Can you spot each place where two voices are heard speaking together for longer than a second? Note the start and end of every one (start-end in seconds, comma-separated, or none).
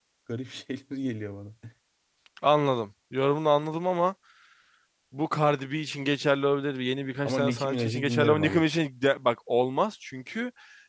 7.2-8.7